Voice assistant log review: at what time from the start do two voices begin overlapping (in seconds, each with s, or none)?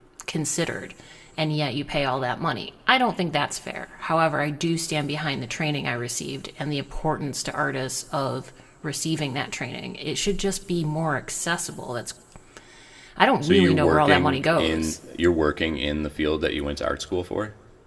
13.4 s